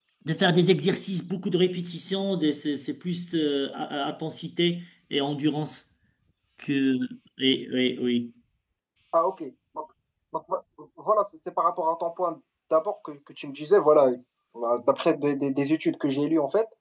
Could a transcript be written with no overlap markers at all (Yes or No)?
Yes